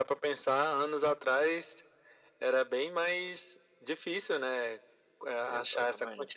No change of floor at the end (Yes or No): Yes